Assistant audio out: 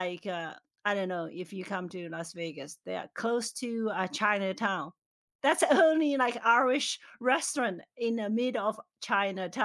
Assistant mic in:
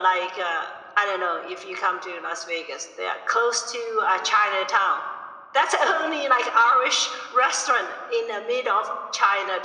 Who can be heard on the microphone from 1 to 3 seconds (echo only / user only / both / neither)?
echo only